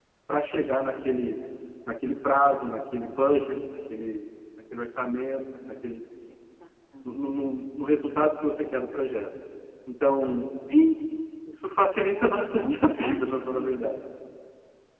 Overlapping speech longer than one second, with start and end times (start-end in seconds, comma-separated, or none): 12.1-13.8